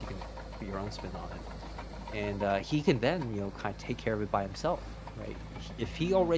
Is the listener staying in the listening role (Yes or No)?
Yes